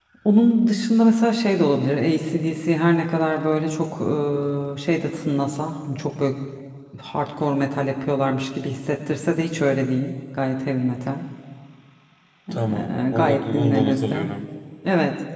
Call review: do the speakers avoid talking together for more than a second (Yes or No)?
No